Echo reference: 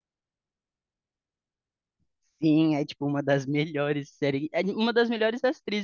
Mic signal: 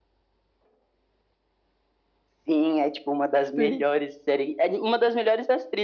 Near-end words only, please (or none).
sim.